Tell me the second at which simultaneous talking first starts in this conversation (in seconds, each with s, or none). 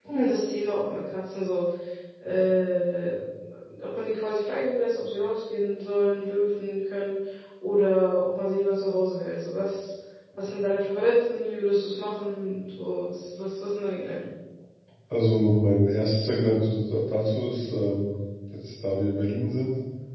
none